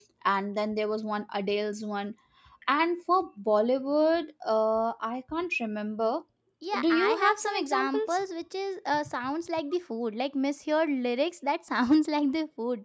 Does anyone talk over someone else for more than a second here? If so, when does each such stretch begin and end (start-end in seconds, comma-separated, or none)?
6.9-8.2